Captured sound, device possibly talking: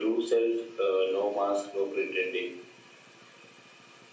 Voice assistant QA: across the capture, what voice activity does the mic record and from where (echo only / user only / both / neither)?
echo only